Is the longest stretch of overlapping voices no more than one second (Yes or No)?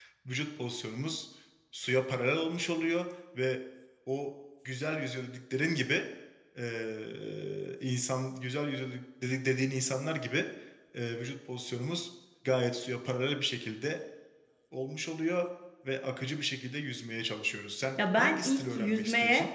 No